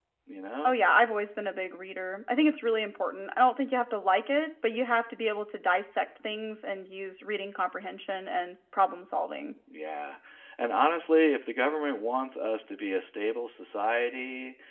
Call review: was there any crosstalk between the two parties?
No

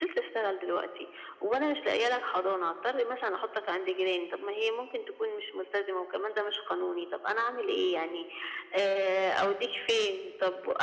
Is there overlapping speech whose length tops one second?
No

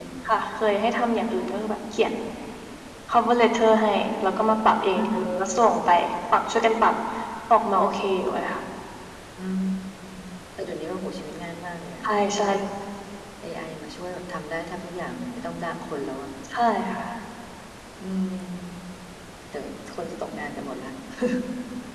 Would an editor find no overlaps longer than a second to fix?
Yes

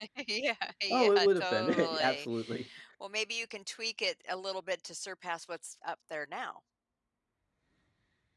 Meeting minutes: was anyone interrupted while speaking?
Yes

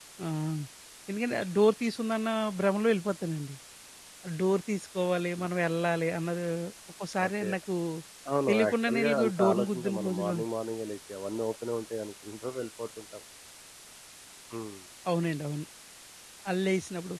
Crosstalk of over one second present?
Yes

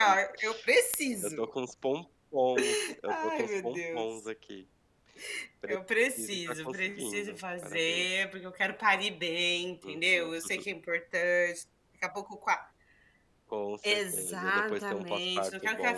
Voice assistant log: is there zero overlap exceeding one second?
No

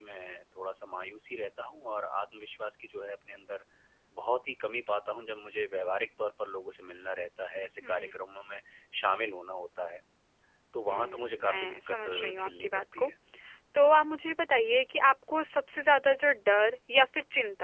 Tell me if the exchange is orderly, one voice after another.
No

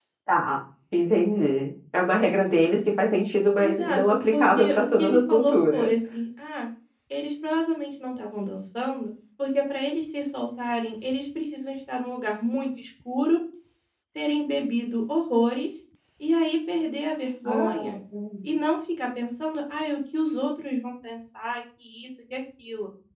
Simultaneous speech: Yes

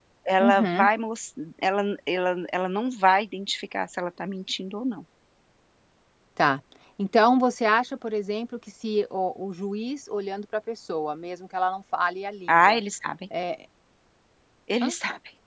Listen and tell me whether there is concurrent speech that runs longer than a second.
No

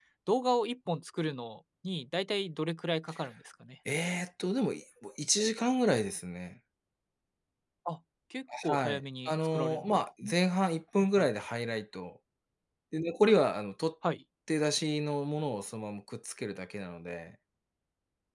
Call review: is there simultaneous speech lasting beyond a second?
Yes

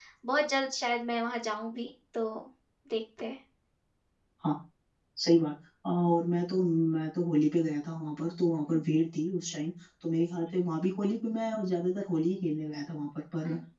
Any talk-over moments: No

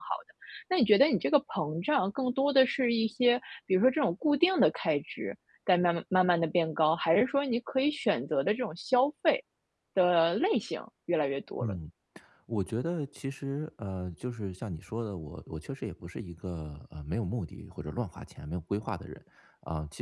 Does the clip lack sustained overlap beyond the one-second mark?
Yes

